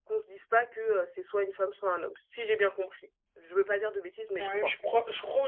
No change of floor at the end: No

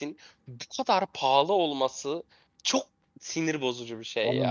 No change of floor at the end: No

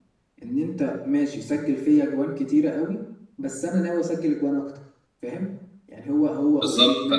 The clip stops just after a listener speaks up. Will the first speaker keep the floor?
Yes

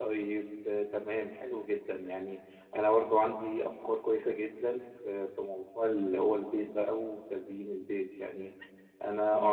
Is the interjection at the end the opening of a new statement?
No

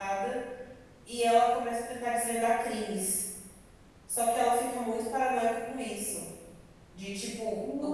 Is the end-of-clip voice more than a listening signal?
Yes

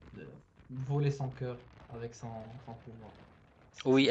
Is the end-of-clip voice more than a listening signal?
Yes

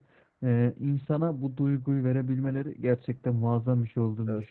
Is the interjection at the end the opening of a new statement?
No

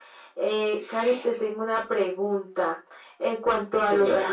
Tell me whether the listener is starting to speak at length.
No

